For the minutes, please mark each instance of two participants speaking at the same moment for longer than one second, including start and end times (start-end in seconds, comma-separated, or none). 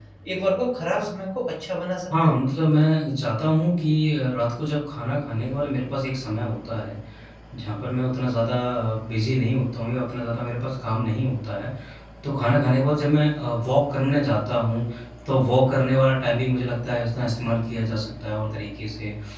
none